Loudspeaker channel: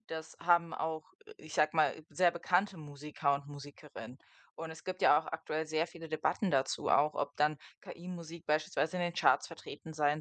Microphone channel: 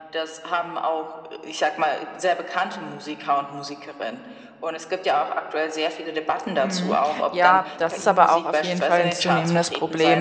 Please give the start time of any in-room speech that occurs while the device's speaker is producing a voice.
6.6 s

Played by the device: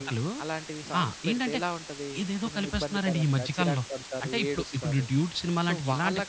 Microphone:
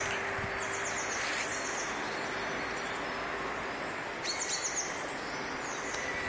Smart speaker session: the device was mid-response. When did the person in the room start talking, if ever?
none

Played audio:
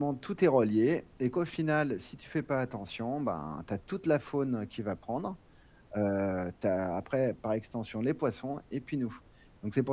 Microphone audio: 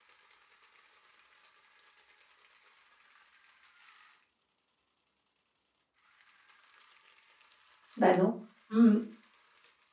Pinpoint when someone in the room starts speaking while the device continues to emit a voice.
8.0 s

